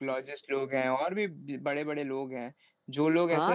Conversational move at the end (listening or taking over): taking over